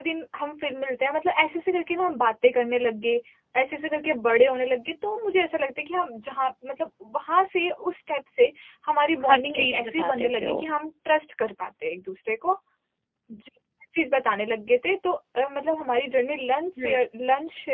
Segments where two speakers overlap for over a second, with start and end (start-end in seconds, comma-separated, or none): 9.2-10.6